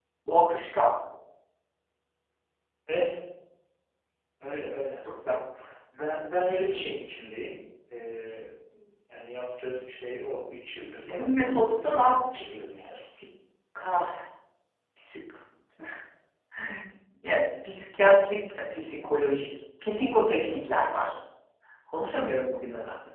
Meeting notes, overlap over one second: present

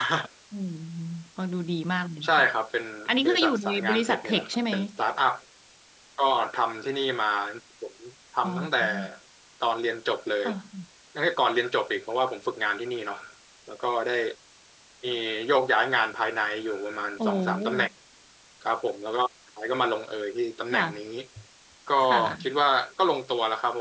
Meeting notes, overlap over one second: present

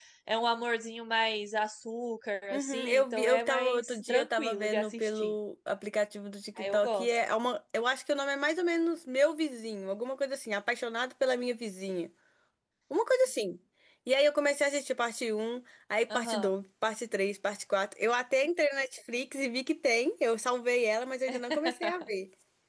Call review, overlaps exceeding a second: present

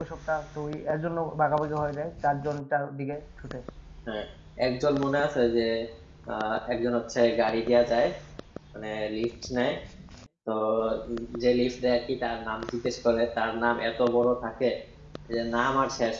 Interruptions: none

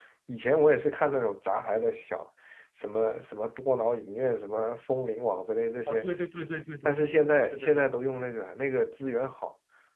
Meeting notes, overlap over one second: none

